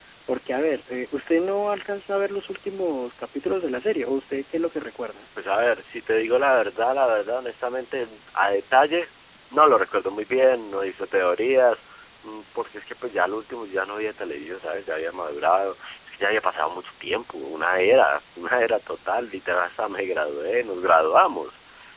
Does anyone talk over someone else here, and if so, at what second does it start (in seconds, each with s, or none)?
none